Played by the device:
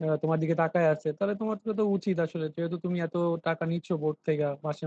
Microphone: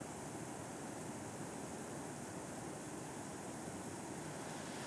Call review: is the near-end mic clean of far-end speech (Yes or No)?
Yes